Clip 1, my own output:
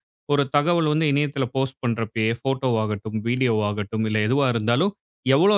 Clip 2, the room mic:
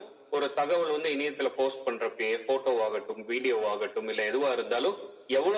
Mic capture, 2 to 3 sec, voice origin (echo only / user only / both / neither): echo only